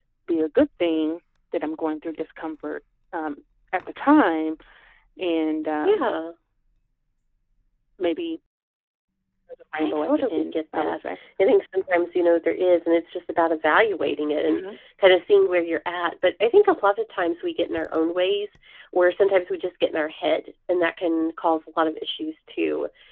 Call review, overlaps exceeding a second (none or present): present